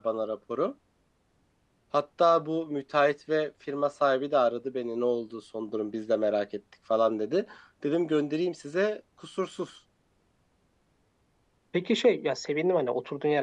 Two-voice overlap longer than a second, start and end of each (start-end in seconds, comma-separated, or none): none